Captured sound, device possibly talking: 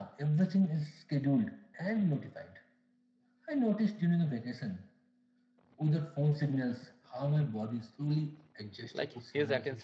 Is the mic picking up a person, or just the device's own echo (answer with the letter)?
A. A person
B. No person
A